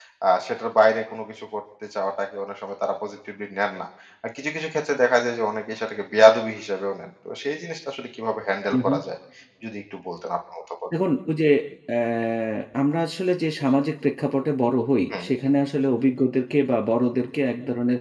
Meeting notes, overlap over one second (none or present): none